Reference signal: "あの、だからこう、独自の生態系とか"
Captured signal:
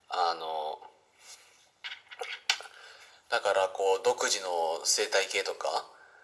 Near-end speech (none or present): none